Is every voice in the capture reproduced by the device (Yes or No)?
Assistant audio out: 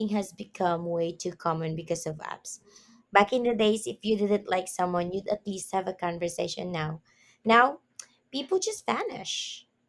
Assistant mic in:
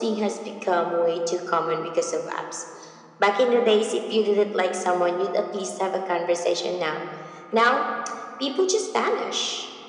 No